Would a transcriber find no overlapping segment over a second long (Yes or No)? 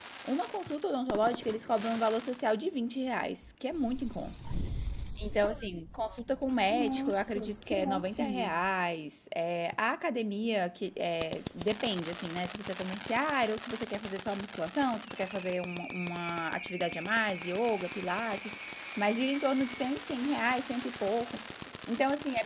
No